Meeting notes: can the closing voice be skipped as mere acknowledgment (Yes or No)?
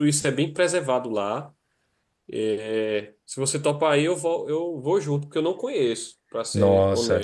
No